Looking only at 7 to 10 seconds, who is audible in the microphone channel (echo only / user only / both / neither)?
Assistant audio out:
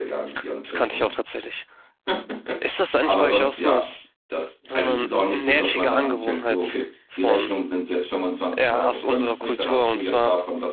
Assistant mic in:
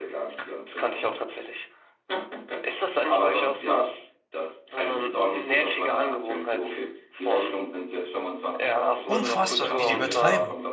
both